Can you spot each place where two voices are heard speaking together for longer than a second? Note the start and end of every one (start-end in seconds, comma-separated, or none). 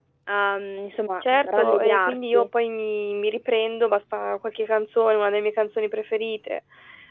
1.2-2.5